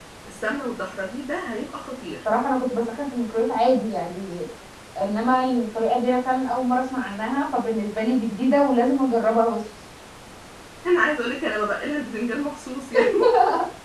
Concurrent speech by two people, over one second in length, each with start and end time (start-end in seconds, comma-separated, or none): none